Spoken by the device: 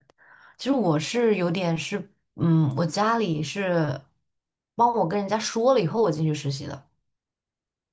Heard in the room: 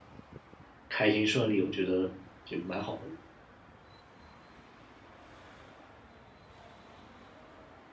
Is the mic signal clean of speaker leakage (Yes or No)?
Yes